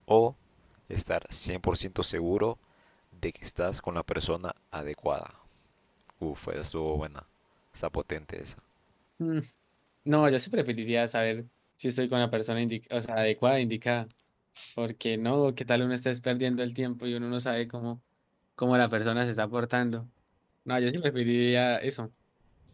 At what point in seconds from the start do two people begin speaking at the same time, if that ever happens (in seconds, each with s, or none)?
none